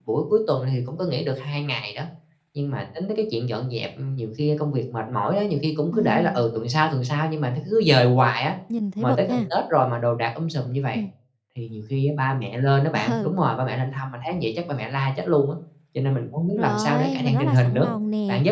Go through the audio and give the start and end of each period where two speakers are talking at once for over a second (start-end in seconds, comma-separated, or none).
16.6-17.9